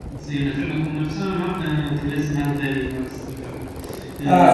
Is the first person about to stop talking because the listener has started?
Yes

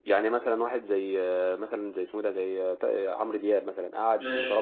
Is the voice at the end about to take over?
No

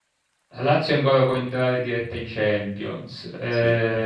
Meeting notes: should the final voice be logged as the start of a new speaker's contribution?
No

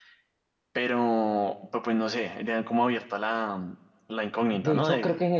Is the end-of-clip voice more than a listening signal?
Yes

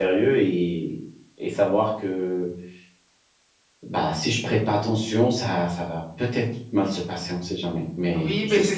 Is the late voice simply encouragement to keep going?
No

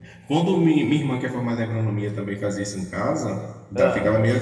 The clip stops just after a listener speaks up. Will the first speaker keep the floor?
Yes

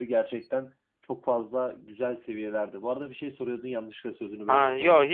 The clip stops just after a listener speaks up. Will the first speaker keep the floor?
No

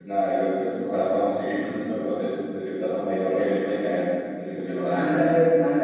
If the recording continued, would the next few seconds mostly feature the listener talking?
Yes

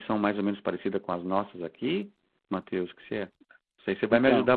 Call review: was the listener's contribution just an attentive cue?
Yes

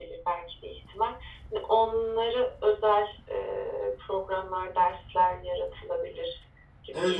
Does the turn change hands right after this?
Yes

